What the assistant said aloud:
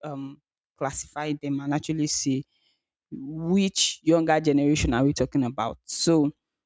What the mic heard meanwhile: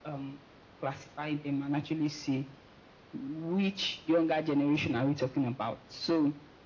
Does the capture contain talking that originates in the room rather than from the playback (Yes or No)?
No